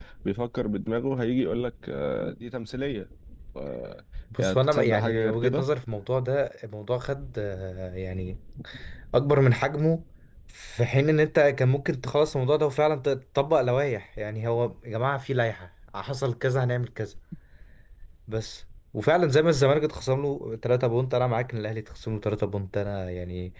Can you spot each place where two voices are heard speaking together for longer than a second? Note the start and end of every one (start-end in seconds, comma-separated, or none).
4.4-5.6